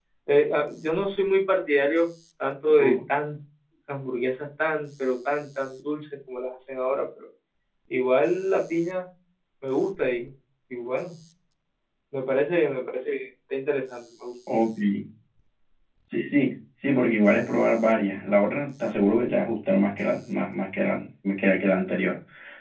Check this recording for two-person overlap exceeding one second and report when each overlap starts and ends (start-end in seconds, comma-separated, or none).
none